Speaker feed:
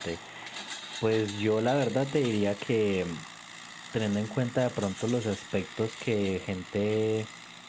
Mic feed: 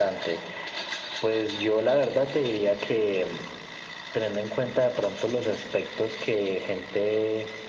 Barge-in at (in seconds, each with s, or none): none